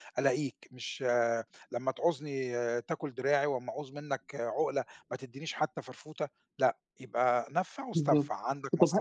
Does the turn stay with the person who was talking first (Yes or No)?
No